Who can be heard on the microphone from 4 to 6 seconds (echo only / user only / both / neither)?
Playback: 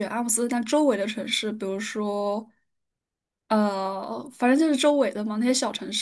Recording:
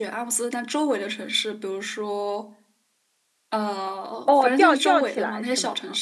both